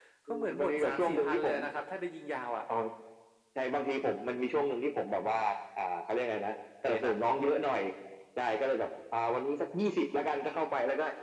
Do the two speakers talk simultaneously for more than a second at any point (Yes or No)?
Yes